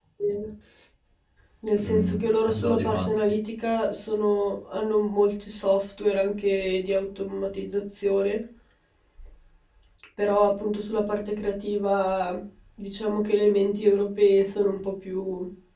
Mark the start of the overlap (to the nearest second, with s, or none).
2 s